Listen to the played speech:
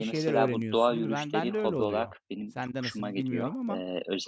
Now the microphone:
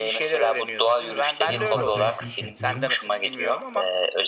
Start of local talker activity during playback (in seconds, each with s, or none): 1.4 s